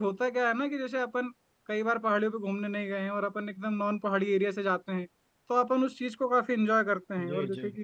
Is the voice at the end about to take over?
No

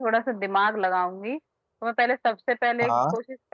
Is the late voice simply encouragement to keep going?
Yes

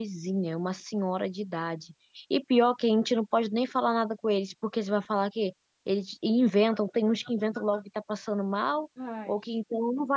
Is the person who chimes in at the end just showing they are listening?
Yes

